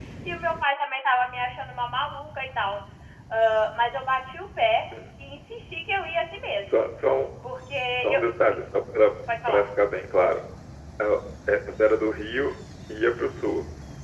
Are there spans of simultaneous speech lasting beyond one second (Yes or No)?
No